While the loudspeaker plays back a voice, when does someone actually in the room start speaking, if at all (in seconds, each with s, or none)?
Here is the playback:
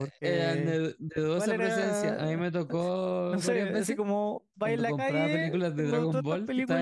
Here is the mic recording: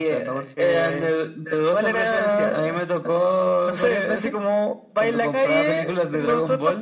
none